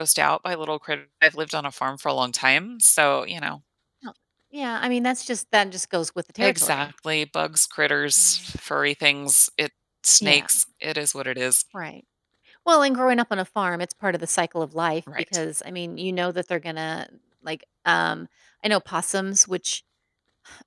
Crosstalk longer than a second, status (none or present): none